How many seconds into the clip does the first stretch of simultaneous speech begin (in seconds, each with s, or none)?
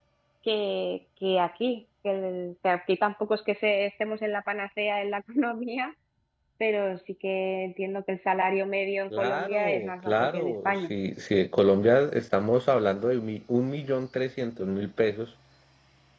9.1 s